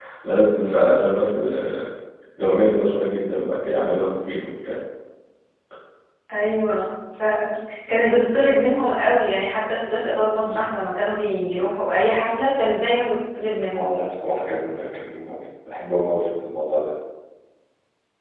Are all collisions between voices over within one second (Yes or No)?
Yes